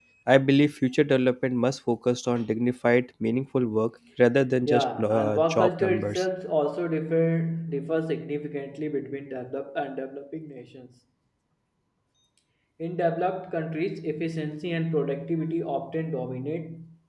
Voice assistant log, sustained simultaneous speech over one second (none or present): present